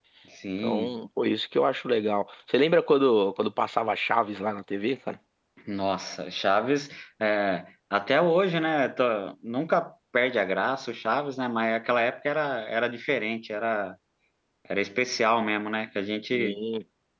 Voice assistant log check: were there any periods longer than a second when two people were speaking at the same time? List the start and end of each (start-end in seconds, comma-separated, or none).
none